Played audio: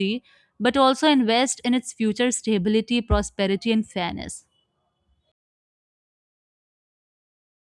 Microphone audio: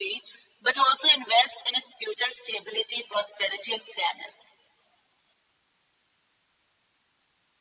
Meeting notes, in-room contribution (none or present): none